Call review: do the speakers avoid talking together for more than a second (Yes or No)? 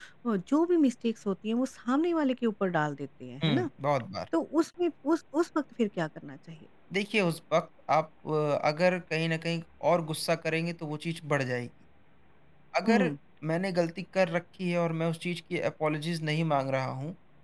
Yes